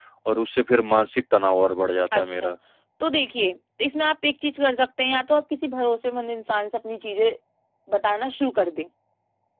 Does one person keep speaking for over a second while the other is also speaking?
No

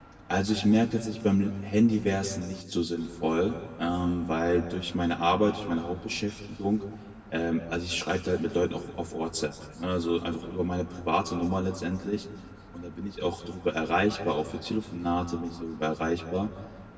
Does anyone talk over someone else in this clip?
No

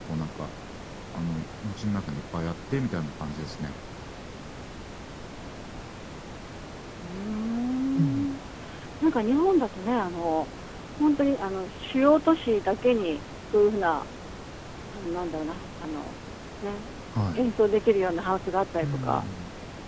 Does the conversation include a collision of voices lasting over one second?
No

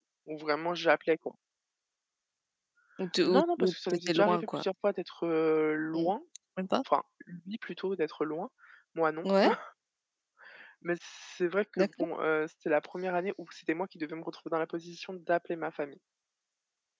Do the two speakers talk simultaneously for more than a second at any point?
Yes, from 3.2 s

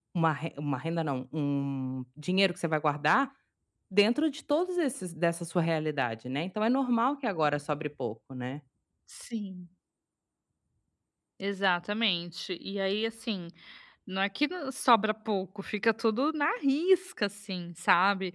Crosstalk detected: No

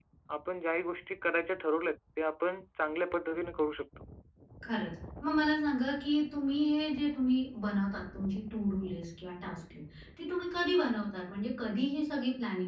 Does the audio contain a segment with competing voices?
No

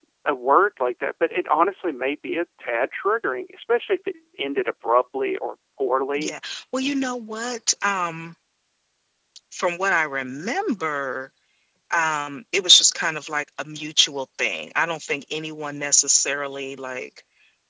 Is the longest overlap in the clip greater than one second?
No

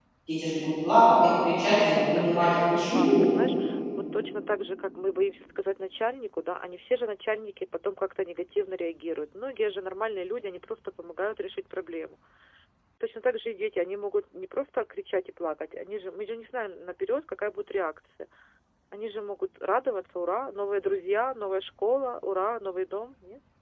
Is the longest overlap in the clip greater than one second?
Yes, from 1.5 s

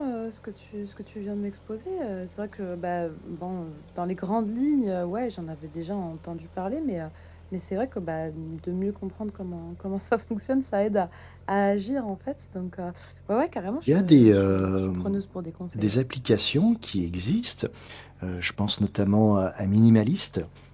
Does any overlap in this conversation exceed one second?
Yes, from 13.9 s

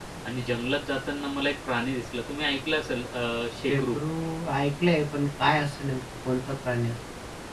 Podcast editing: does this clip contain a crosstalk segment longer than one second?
No

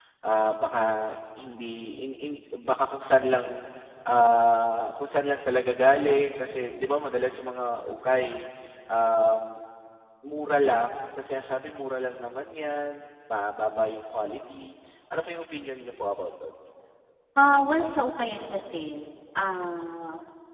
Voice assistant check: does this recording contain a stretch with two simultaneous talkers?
No

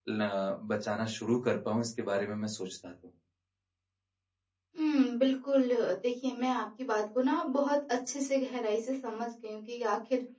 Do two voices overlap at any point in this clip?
No

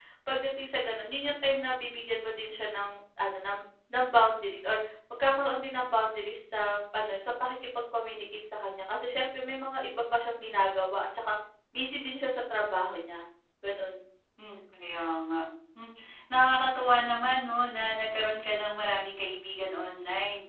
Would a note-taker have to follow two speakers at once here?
No

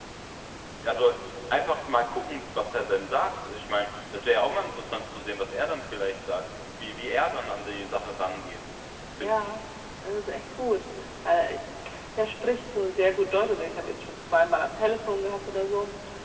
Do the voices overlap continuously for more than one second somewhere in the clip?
No

